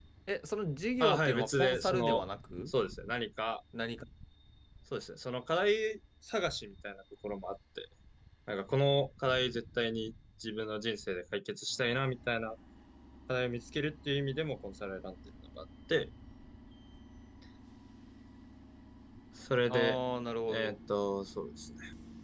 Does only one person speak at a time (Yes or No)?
No